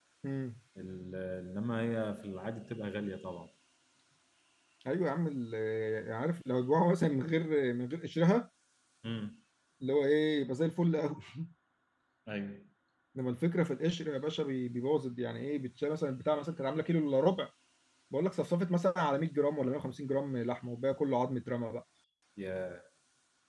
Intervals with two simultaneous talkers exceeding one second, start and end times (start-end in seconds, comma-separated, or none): none